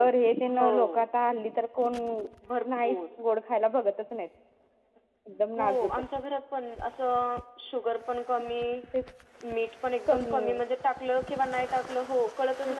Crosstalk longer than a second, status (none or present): none